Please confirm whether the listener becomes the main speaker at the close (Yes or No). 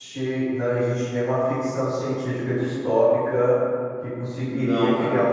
No